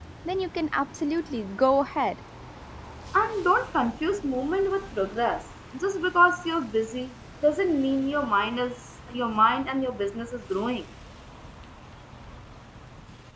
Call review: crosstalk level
none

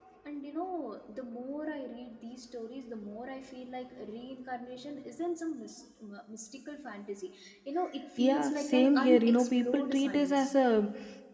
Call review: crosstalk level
present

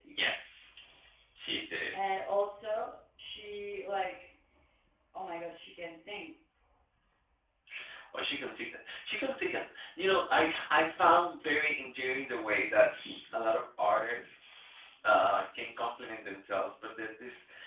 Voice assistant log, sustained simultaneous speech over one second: none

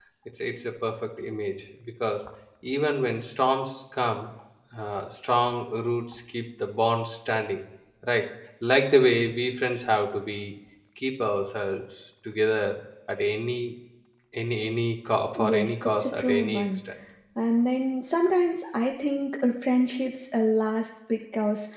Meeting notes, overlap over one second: present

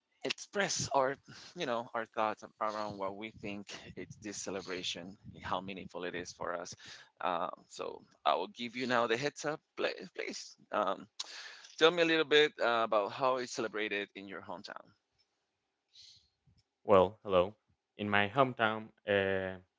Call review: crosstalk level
none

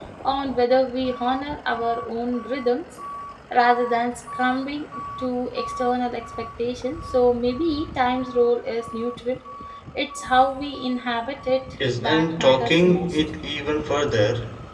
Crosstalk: present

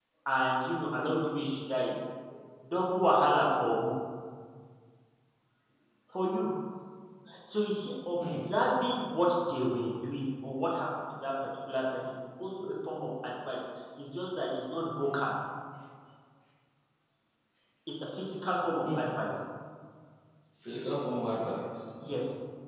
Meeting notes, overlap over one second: none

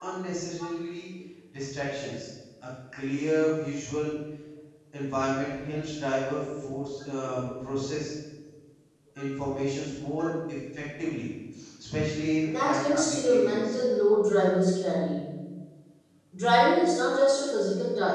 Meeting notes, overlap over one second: present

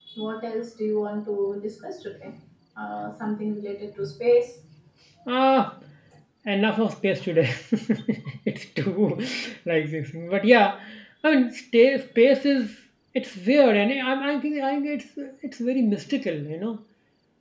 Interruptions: none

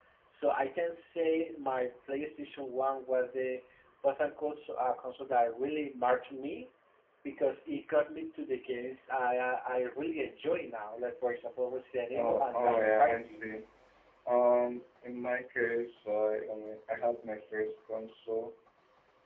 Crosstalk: present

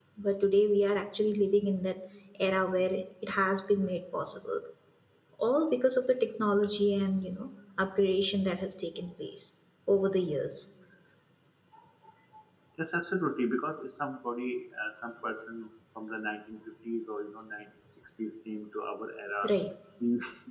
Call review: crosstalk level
none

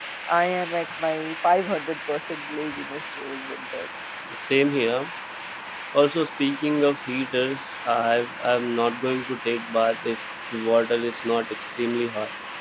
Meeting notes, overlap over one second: none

